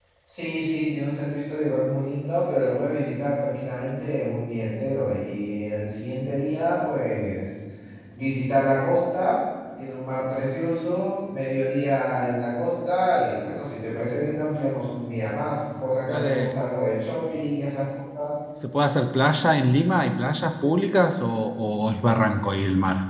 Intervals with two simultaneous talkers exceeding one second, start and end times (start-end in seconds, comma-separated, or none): none